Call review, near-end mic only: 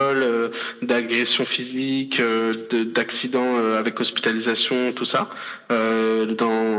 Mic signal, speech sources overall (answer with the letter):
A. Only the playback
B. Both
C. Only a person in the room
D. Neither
A